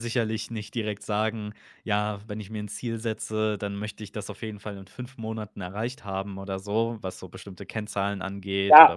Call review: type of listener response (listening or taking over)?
taking over